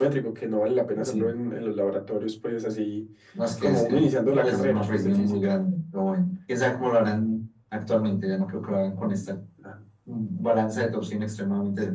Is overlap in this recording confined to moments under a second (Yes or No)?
No